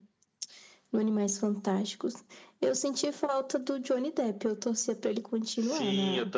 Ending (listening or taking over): taking over